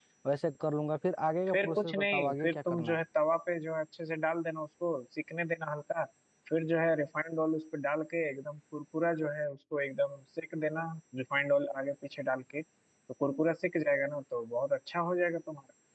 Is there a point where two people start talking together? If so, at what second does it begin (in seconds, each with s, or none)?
1.5 s